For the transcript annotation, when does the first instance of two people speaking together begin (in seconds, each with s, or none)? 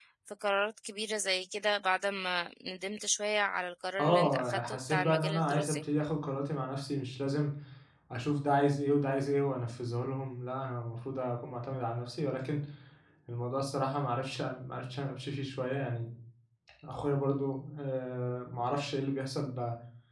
4.0 s